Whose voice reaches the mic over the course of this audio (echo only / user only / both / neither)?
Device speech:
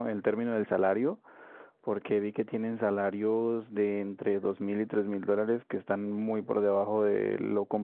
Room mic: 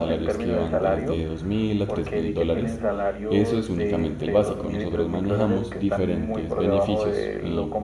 both